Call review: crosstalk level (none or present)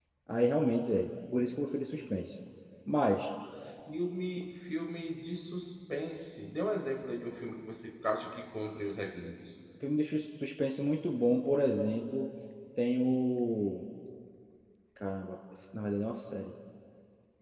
none